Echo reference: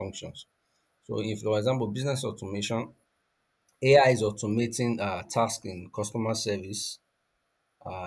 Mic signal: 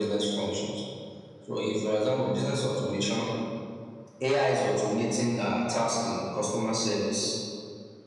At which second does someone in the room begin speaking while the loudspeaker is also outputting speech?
none

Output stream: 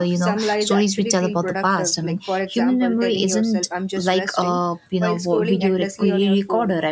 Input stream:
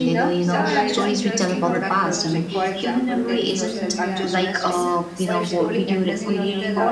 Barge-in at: 0.4 s

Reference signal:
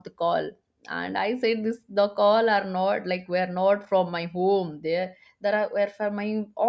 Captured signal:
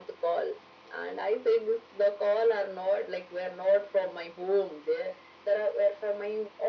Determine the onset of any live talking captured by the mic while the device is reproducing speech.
none

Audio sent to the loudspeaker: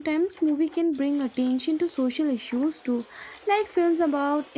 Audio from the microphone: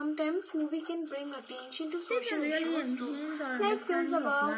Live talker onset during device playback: 2.1 s

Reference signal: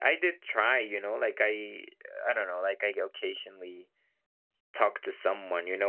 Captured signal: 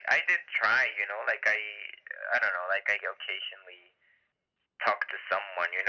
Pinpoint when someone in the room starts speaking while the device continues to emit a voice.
none

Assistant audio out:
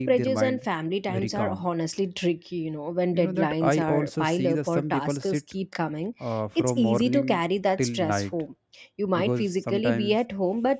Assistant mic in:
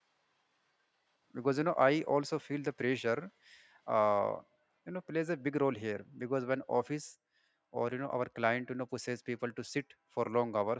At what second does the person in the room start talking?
1.3 s

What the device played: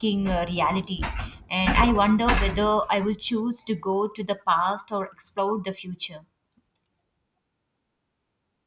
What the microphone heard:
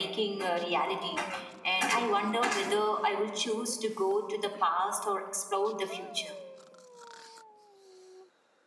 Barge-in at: none

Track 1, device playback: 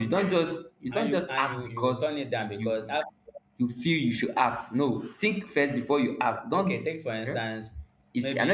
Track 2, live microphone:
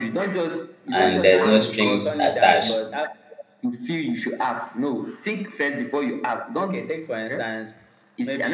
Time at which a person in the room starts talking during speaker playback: 0.9 s

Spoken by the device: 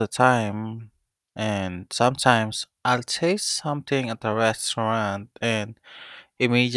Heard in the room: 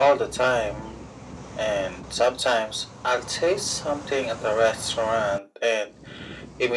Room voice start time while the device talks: none

